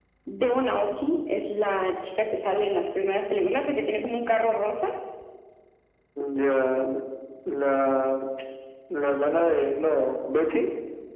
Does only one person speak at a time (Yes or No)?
Yes